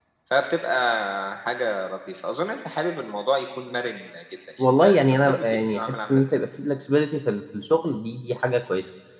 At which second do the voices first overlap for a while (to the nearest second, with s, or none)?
5 s